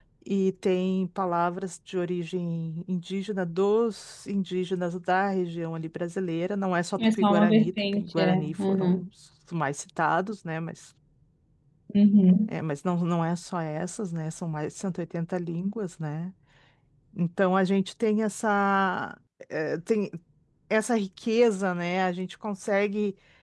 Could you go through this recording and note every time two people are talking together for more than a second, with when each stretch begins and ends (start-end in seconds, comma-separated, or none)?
7.0-9.0